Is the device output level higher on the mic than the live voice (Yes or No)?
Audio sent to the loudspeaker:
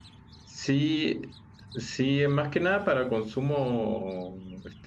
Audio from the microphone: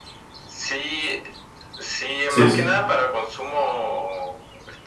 No